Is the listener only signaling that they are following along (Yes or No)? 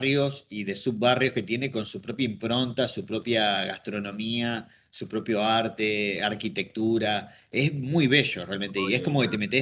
Yes